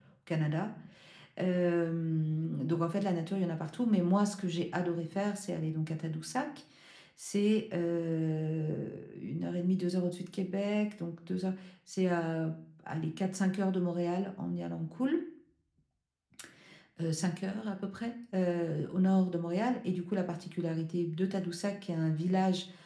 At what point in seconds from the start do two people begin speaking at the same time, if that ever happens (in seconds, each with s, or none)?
none